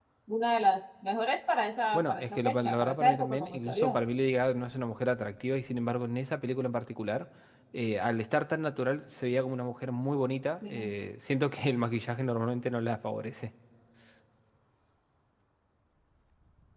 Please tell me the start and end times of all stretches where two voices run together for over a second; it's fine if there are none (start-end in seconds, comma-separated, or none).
1.9-4.0